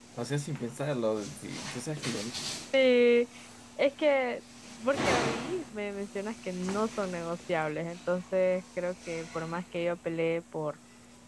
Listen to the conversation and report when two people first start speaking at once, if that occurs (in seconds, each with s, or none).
none